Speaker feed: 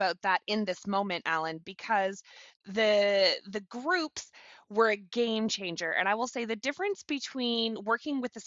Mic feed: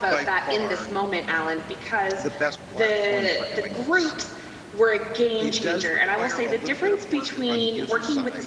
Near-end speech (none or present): present